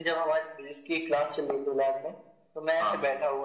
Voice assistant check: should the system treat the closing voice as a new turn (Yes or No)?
No